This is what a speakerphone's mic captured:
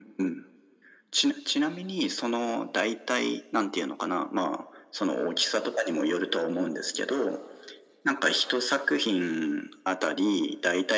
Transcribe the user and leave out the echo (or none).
none